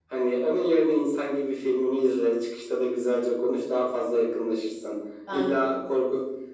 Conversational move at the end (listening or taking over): listening